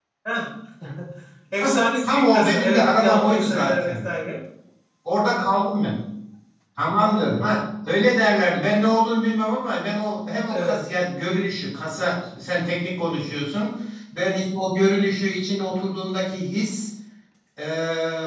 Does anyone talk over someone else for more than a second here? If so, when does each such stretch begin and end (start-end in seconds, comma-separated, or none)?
1.6-4.1